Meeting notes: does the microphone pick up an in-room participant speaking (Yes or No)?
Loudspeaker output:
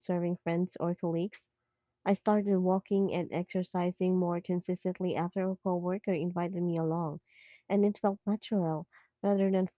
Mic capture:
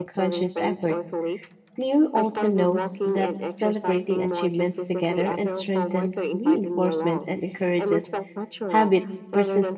Yes